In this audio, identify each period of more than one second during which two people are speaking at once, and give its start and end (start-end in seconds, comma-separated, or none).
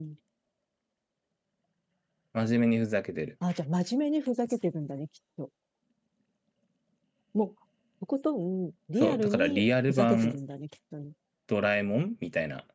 9.0-10.4